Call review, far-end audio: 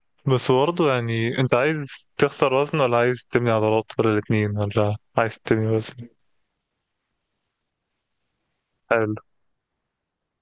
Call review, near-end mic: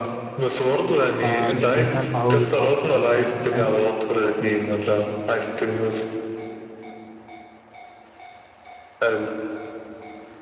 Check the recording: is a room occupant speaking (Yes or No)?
Yes